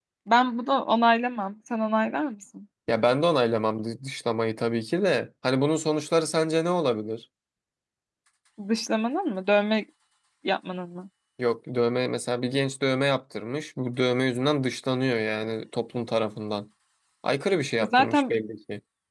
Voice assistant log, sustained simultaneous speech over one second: none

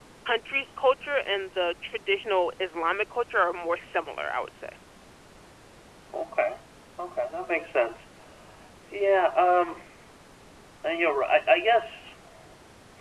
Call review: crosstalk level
none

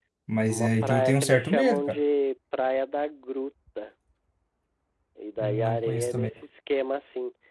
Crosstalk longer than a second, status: present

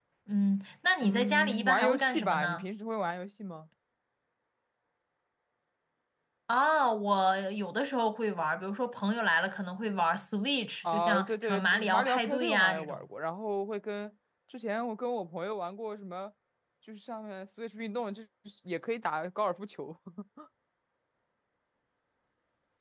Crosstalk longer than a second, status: present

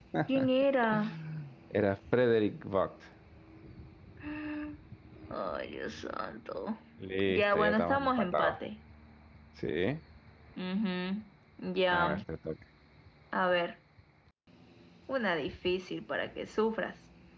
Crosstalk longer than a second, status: present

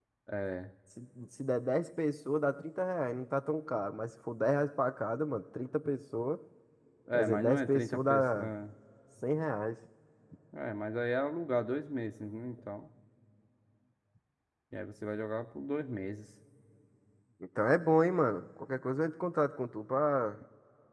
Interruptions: present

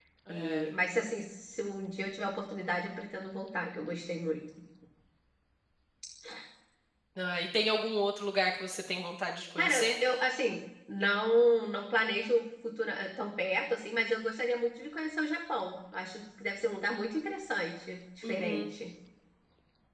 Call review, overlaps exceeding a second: none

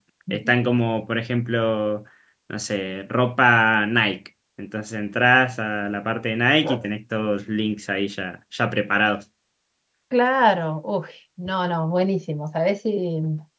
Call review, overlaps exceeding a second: none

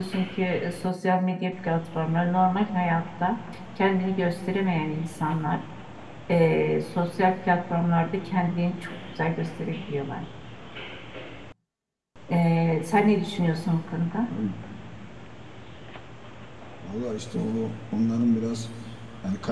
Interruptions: none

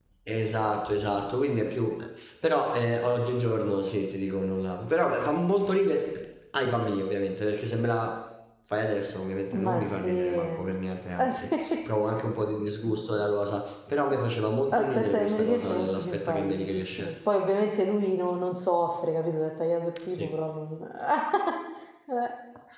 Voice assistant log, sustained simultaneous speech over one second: present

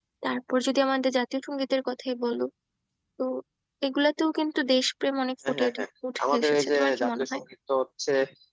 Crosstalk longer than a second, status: present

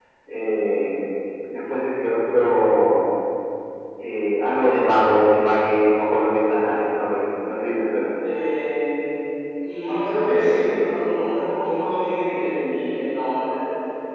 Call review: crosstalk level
none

